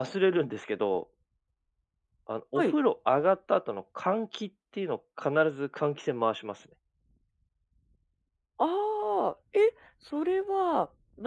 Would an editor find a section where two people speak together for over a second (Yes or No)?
No